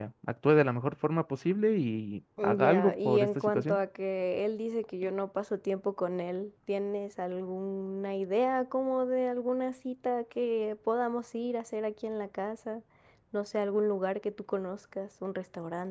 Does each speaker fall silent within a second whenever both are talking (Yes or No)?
No